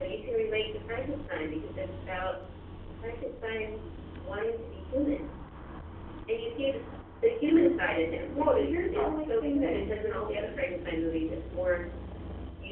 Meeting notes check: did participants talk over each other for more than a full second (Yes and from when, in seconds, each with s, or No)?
Yes, from 8.3 s